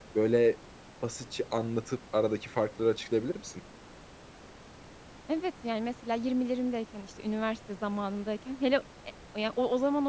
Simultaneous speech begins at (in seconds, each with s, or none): none